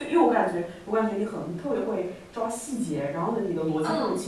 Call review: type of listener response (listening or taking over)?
listening